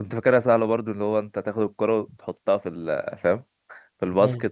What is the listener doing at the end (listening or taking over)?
listening